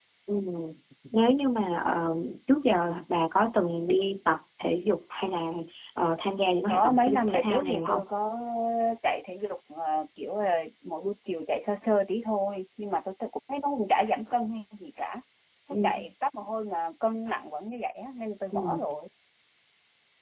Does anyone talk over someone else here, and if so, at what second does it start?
6.7 s

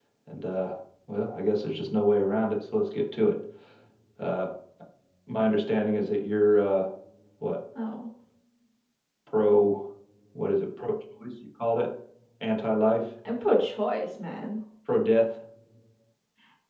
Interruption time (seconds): none

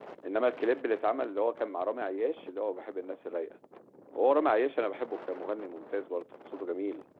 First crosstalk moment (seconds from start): none

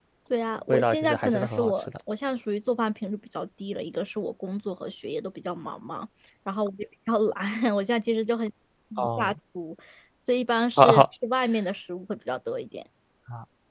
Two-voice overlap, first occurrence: 0.7 s

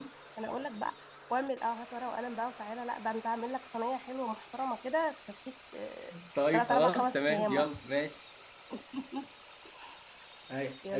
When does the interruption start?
6.5 s

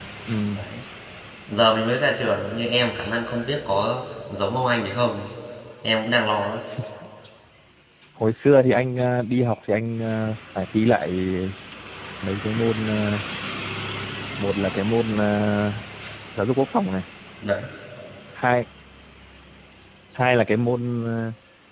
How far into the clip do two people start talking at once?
none

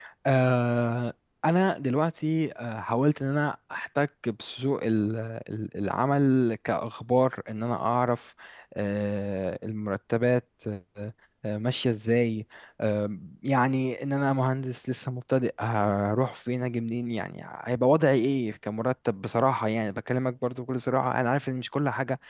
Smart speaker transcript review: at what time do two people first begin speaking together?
none

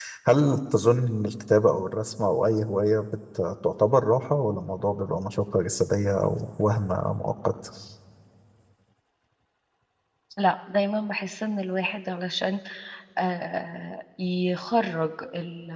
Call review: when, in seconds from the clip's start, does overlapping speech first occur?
none

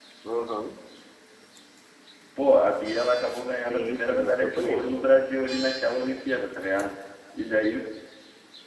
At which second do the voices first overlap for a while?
3.6 s

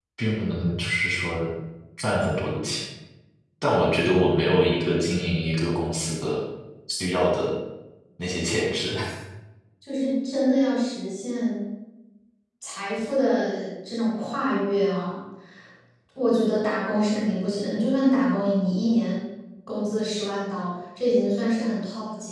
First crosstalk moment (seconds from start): none

